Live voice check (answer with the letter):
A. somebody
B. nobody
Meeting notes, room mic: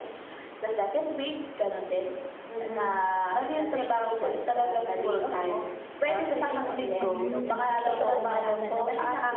A